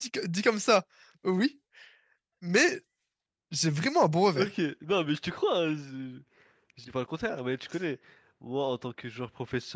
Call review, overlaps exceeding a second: none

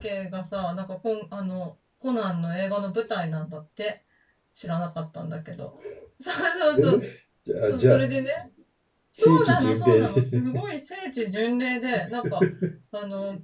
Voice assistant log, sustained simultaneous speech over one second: present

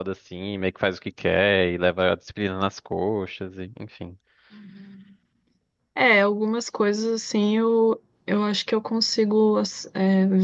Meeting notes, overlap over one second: none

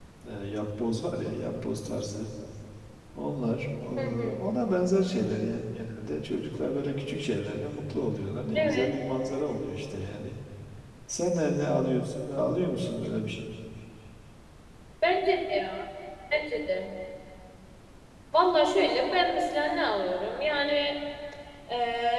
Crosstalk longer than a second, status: none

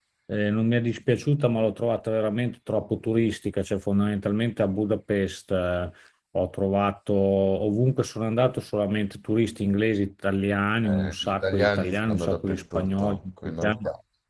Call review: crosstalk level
present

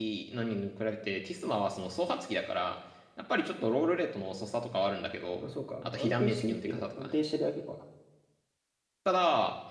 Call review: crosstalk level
present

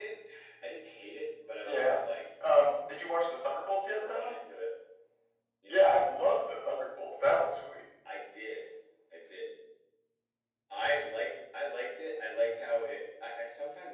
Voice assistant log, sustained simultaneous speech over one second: none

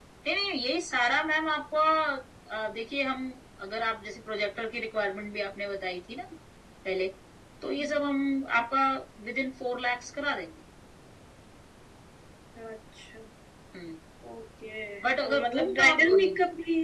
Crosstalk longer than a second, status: present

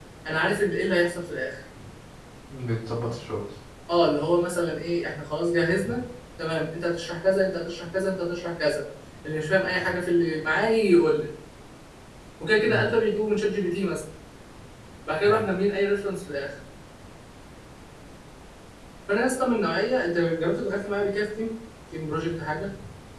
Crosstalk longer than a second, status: none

